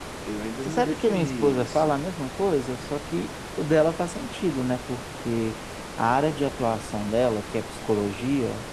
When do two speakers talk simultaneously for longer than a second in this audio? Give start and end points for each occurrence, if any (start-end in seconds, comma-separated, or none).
0.6-1.9